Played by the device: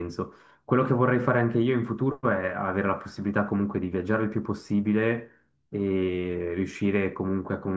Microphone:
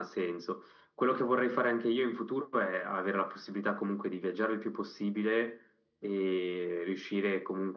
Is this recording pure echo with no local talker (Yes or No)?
Yes